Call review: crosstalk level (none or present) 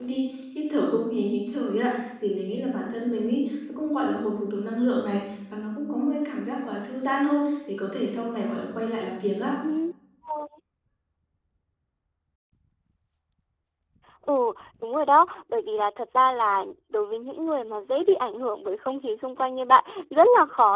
none